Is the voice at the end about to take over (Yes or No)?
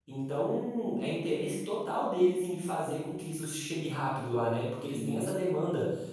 No